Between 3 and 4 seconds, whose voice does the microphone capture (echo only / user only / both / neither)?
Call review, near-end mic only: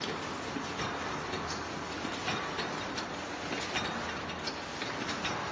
neither